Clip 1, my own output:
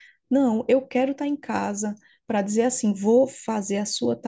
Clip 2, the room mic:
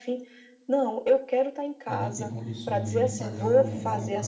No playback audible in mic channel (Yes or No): No